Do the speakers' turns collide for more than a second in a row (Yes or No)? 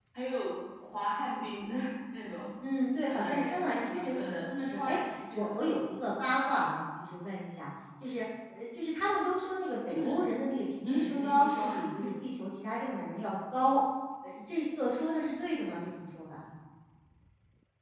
Yes